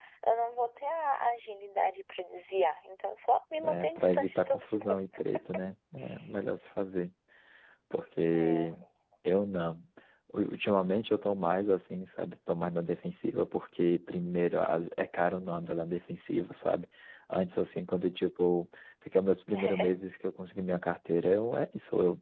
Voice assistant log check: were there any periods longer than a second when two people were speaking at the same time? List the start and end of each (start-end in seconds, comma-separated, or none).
3.6-4.9